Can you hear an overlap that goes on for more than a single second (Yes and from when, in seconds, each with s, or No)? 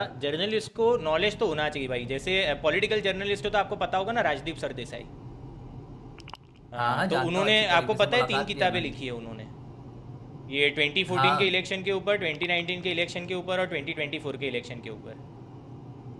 Yes, from 6.8 s